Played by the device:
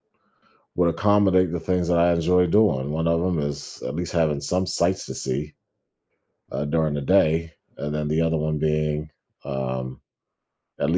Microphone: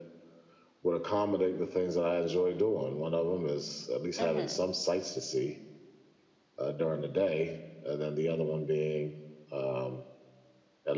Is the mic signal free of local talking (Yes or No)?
No